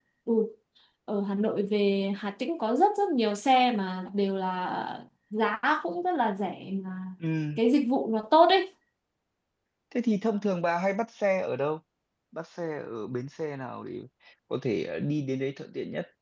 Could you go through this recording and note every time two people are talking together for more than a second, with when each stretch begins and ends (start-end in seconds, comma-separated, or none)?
none